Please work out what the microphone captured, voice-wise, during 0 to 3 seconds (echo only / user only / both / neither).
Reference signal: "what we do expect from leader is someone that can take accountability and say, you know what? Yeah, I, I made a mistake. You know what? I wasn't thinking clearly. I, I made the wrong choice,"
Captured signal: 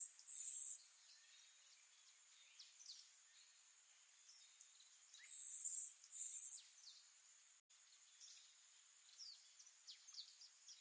neither